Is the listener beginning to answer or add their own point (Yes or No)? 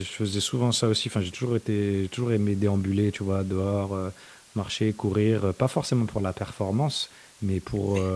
No